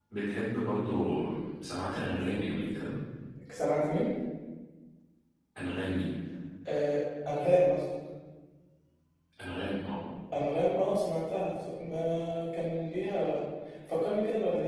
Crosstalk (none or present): none